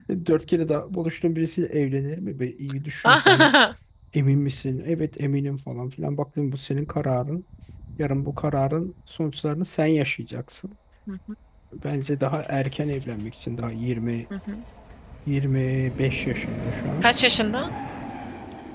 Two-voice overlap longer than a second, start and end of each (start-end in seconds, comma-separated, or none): none